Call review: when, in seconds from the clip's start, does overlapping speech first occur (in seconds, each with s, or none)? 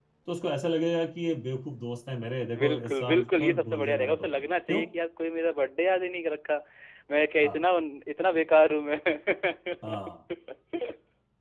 2.5 s